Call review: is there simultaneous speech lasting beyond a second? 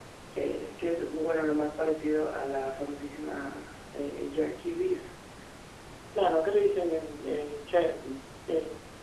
No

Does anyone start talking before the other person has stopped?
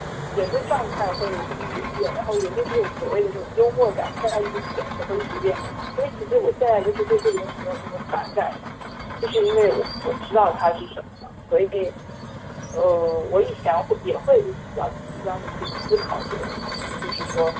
No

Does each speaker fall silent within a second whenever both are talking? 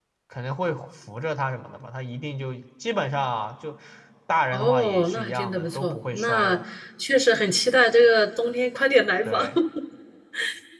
No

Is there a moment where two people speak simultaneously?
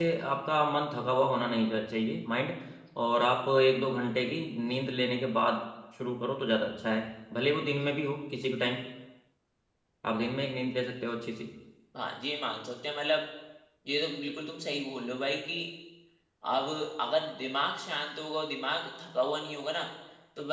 No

